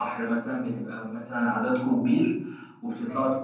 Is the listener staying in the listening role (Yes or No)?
Yes